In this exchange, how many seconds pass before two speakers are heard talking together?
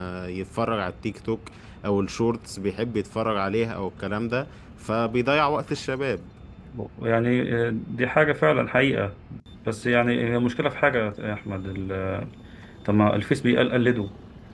none

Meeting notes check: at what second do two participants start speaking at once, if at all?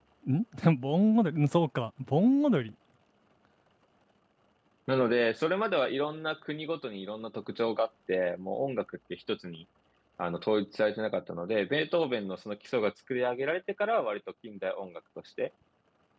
none

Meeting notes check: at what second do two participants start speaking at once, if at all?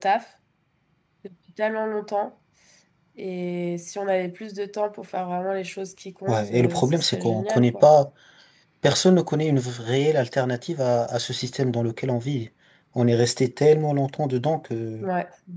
6.3 s

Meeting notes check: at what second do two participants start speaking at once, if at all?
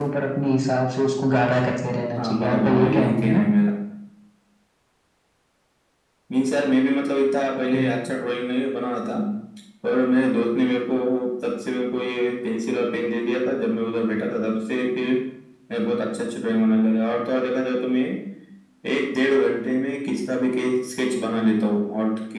2.2 s

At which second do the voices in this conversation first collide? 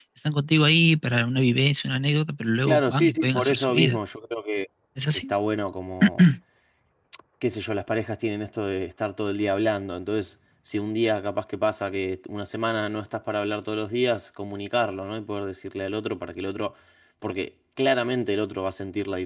2.7 s

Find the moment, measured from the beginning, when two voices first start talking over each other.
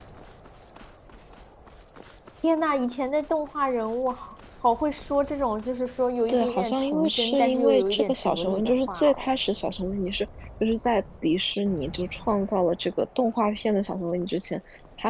6.3 s

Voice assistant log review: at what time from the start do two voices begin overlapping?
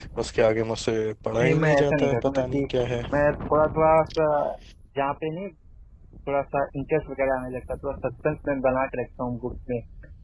1.4 s

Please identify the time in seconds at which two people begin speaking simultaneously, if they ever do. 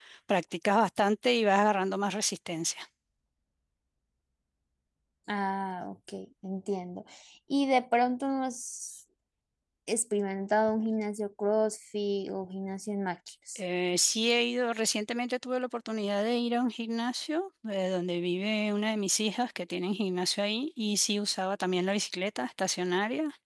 none

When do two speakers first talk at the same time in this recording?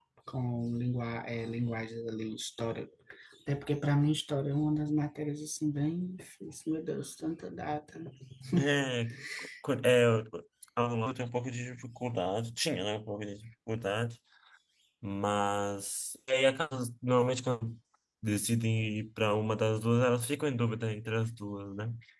none

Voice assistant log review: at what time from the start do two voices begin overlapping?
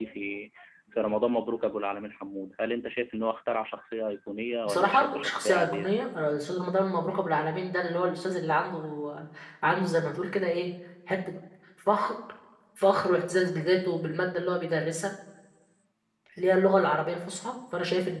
4.7 s

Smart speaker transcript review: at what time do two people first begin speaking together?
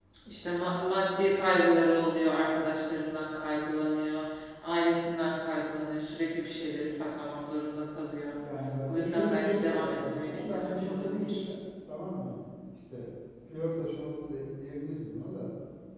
8.9 s

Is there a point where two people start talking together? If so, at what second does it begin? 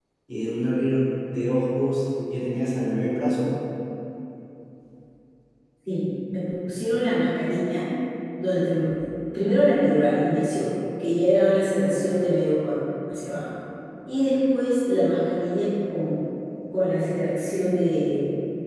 none

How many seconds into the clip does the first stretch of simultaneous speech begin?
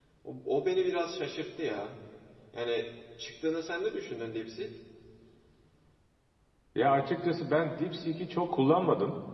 none

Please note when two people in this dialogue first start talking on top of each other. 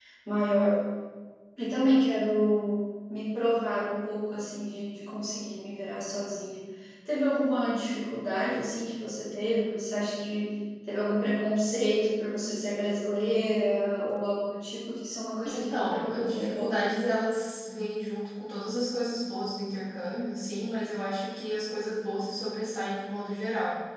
15.4 s

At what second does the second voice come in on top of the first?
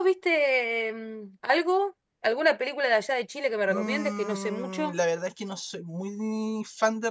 3.7 s

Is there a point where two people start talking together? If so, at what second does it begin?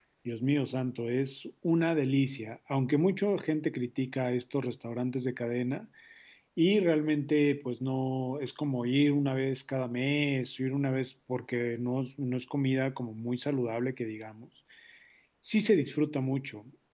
none

